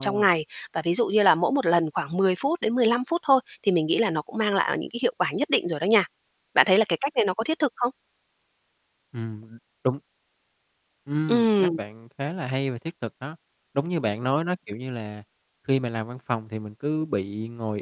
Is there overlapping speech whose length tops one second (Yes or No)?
No